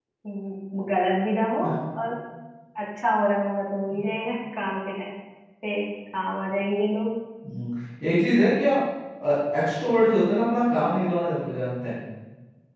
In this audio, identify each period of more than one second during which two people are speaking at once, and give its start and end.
none

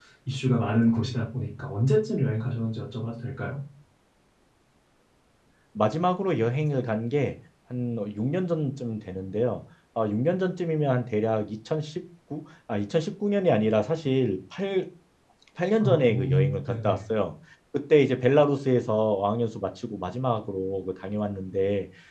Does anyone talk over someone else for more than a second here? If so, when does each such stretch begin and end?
15.8-17.0

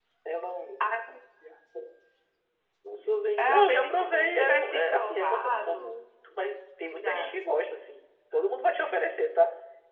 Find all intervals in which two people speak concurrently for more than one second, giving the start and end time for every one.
3.4-5.9

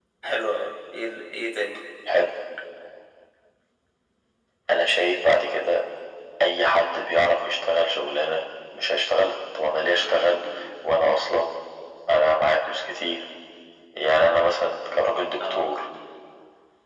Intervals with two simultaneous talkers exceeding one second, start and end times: none

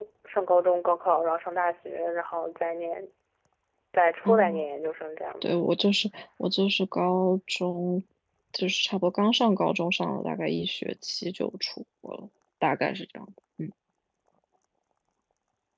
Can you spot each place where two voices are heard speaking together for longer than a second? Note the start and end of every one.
none

